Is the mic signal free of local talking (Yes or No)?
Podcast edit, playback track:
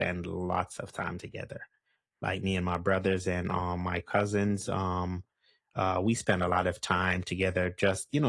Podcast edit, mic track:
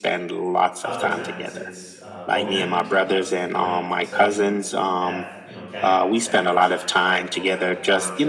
No